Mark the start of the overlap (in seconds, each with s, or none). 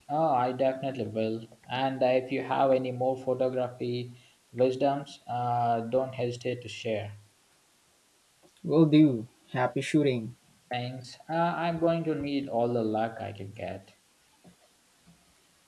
none